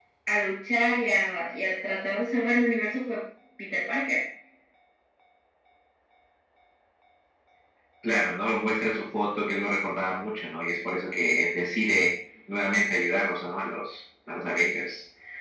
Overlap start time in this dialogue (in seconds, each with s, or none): none